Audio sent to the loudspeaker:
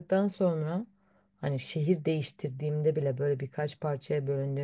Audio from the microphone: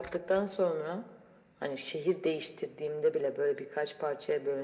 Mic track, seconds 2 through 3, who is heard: echo only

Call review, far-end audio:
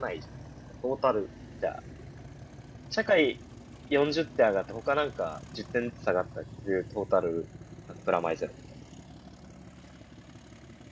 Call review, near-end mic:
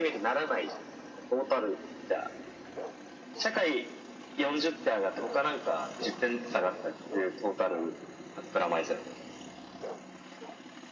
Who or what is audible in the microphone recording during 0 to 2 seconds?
echo only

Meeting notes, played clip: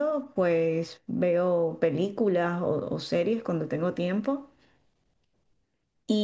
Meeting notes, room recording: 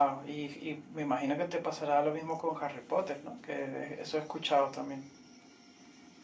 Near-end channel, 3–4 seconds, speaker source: user only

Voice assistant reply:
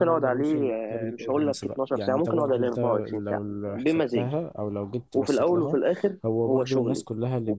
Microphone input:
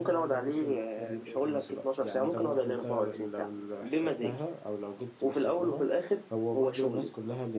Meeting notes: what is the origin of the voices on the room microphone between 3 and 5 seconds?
echo only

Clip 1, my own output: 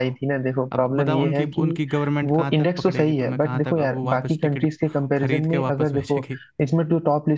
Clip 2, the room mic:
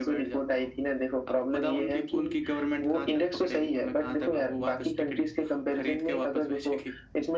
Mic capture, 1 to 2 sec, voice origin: echo only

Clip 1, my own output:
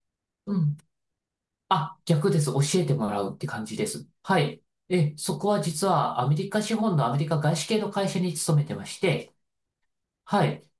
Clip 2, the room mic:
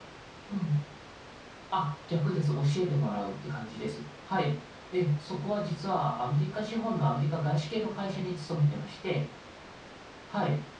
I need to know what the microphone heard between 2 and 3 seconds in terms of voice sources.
echo only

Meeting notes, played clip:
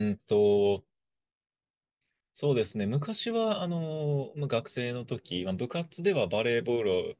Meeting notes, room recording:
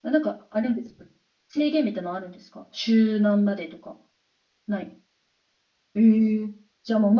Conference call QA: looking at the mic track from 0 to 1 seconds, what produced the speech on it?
user only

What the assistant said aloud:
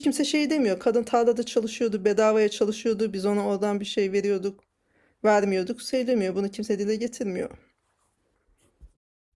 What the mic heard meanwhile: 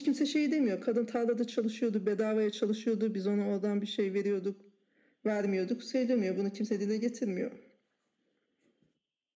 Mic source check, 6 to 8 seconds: echo only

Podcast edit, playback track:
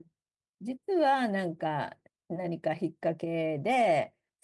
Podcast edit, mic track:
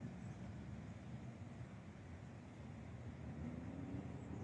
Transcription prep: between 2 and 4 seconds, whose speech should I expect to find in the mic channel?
neither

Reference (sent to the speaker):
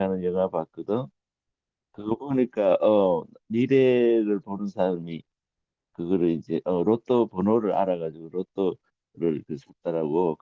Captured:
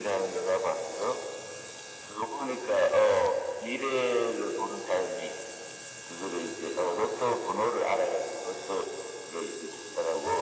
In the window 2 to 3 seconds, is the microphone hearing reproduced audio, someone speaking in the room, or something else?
echo only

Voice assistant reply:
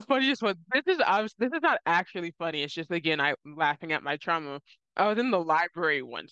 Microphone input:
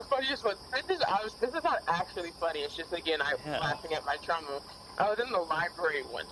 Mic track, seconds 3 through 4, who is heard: both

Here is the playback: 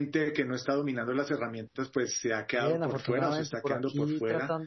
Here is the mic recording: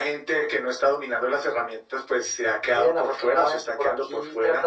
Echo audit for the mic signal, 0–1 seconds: echo only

